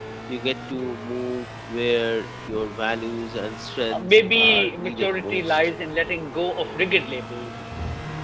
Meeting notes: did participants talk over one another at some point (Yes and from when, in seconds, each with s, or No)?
Yes, from 3.9 s